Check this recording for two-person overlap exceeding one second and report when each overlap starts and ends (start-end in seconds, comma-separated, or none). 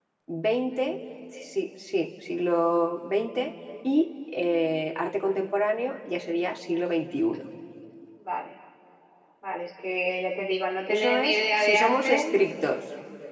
10.9-12.2